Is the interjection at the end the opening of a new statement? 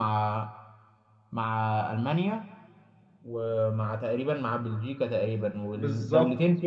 No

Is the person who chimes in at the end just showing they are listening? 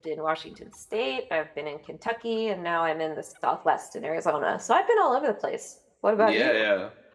No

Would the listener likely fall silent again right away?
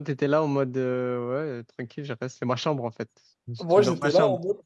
No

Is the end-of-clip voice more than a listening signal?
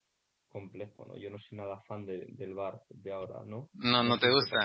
Yes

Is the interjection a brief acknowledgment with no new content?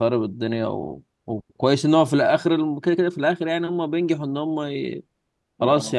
Yes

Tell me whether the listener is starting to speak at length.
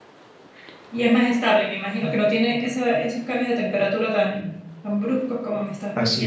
Yes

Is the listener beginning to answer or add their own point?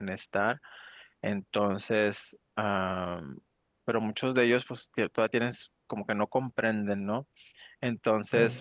No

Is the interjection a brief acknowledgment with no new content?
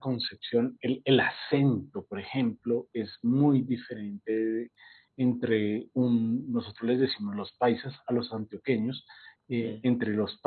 Yes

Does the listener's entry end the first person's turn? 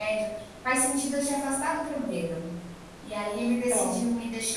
No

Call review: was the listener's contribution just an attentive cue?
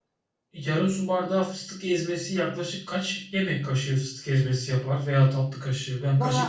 No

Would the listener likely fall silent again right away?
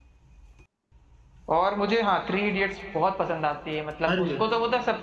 Yes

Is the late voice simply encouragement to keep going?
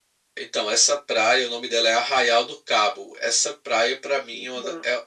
Yes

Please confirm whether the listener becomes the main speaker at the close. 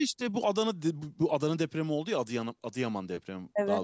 No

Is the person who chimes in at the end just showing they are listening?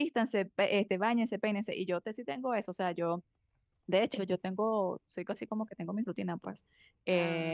Yes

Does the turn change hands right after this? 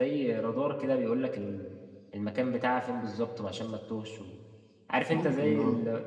No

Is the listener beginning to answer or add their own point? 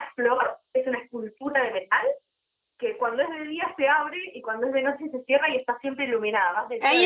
Yes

